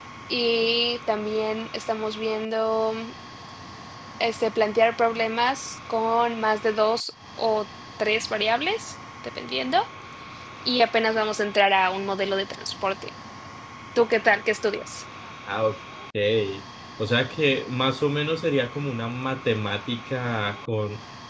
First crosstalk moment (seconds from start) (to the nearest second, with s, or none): none